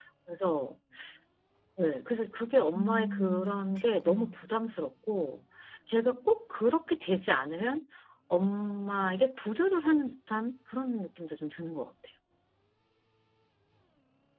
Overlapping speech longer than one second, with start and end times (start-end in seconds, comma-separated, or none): 2.7-4.4